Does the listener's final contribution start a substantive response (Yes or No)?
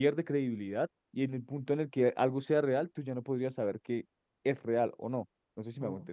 Yes